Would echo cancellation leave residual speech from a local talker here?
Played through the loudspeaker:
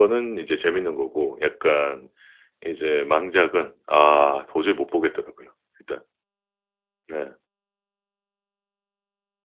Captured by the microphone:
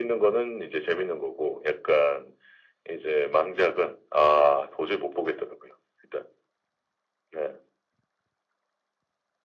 No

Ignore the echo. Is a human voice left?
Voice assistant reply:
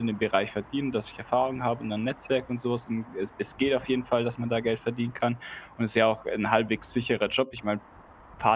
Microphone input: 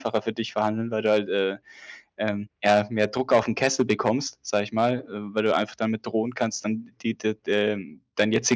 Yes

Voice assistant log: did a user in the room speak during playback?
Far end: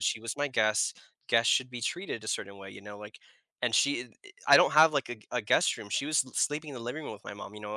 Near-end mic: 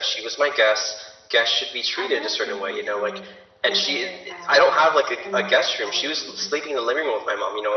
Yes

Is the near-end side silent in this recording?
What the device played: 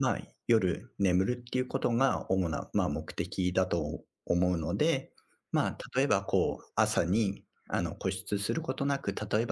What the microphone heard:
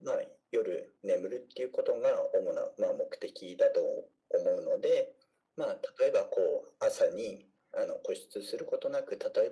Yes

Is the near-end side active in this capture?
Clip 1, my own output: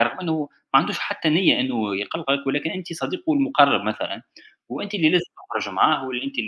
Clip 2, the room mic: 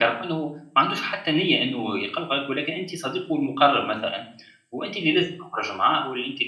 No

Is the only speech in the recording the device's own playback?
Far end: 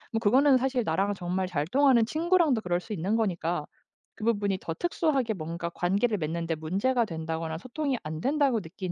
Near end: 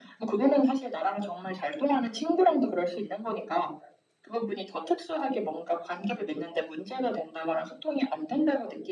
Yes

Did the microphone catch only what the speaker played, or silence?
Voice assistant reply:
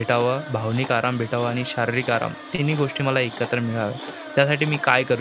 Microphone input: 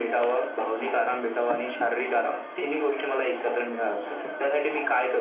Yes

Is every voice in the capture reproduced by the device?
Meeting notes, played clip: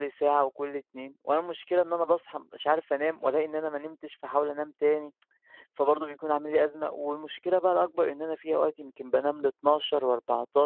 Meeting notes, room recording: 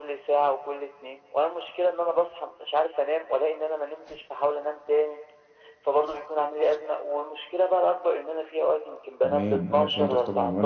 No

